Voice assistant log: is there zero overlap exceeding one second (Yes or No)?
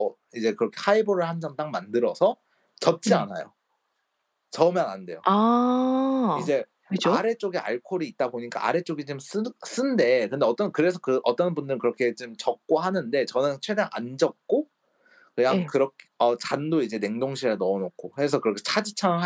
Yes